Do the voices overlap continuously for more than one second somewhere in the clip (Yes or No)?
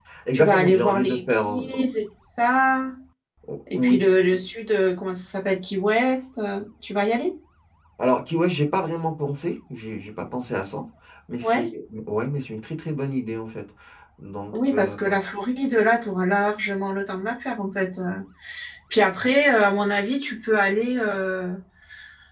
Yes